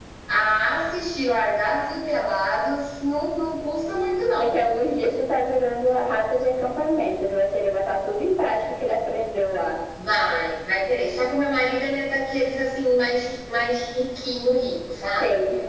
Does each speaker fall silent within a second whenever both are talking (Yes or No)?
Yes